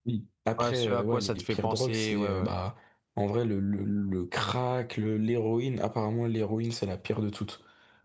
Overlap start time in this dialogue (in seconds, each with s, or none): 0.6 s